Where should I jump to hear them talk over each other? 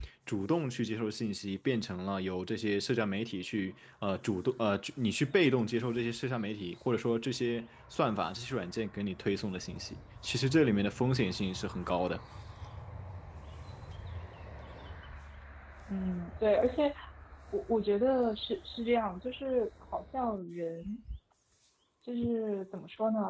none

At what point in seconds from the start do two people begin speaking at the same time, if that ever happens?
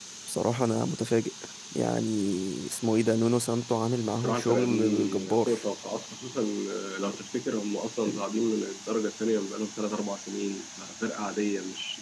4.2 s

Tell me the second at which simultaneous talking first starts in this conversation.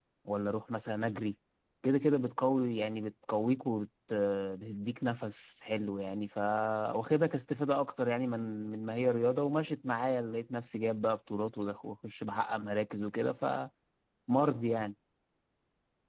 none

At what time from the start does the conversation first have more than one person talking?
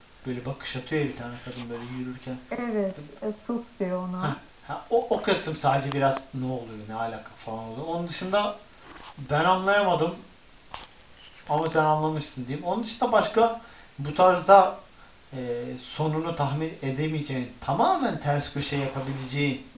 none

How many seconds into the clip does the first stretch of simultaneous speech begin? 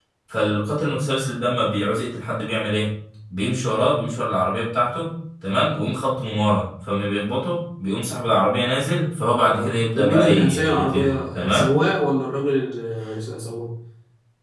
9.5 s

